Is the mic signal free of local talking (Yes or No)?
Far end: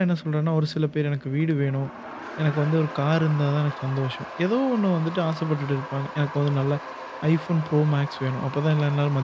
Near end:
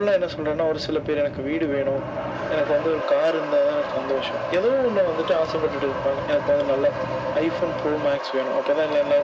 Yes